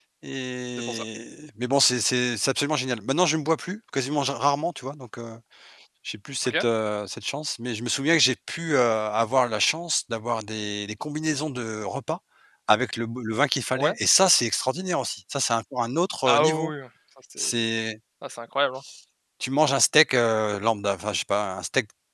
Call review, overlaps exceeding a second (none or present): none